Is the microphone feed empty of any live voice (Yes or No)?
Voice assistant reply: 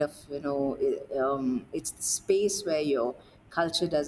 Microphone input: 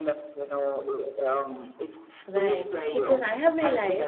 No